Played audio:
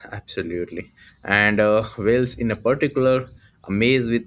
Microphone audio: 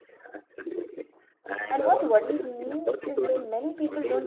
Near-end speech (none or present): present